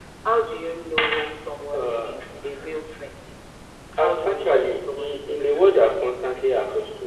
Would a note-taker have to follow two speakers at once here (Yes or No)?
Yes